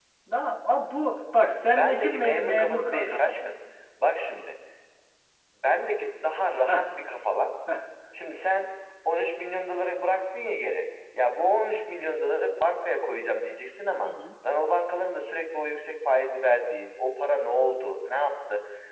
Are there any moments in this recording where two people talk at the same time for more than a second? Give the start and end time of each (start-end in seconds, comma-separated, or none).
1.8-3.5